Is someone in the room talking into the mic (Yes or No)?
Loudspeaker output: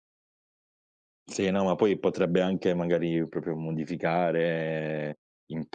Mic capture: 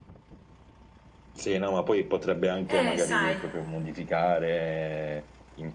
Yes